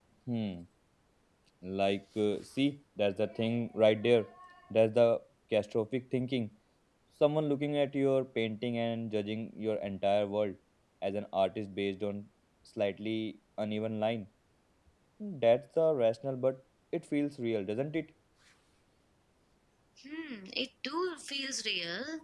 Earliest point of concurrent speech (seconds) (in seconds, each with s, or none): none